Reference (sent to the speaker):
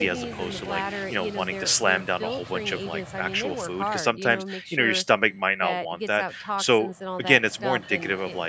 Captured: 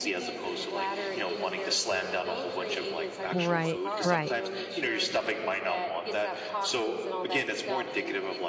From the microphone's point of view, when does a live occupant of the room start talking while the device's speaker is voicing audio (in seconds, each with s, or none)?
3.3 s